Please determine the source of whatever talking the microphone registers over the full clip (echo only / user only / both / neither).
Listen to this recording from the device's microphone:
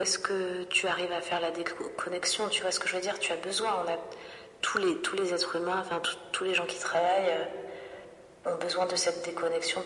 echo only